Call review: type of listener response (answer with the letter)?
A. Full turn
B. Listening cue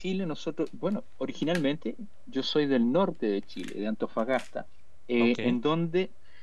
B